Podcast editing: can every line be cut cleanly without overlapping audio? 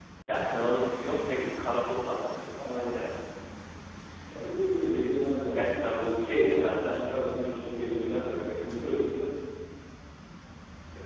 No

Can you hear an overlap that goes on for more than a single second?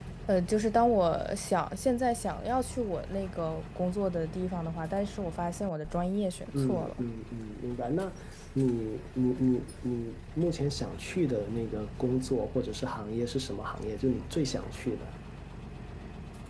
No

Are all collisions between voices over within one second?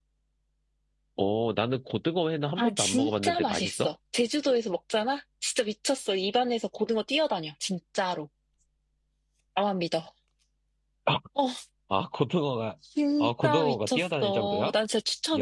No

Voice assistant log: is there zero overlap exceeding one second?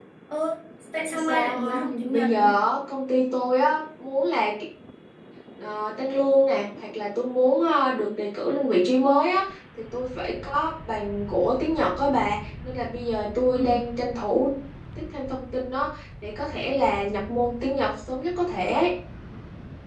No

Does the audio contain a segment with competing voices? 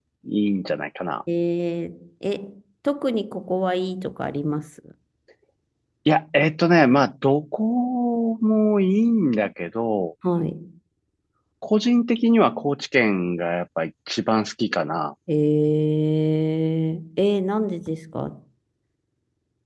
No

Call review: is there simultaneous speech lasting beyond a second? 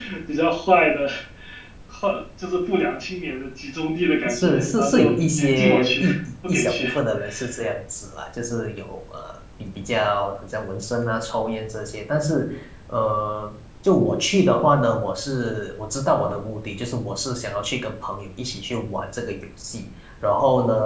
Yes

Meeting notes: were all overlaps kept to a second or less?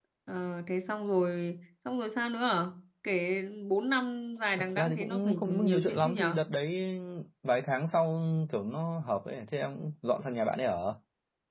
No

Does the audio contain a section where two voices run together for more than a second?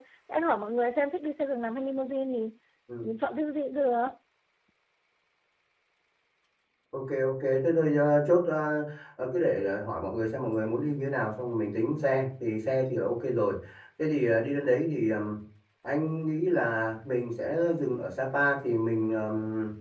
No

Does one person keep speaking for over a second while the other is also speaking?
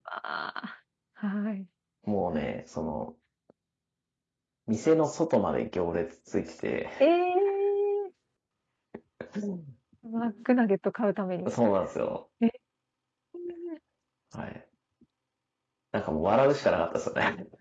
No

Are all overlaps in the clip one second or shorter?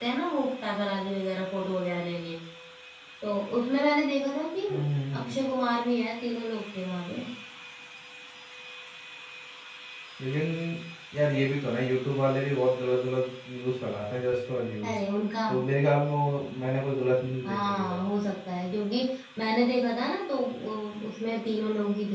Yes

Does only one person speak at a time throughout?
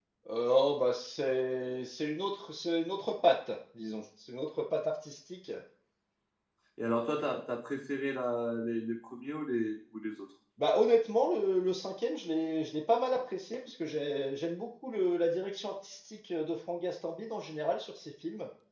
Yes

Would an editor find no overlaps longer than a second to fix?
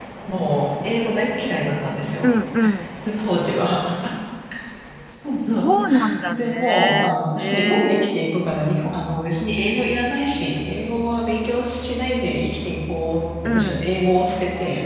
No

